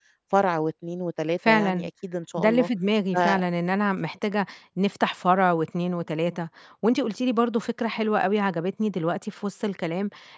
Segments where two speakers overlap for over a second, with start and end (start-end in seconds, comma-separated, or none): none